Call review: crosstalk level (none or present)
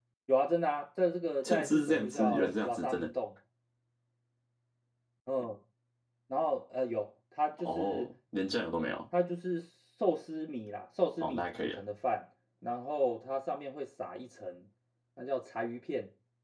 present